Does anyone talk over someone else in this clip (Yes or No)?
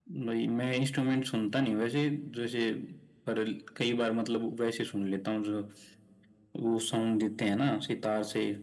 No